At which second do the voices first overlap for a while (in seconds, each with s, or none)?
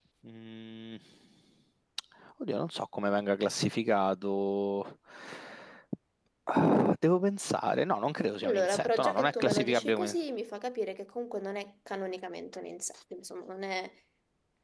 8.4 s